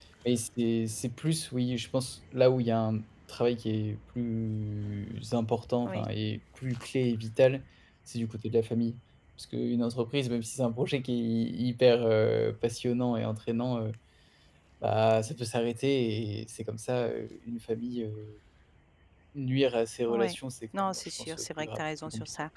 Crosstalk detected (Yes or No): Yes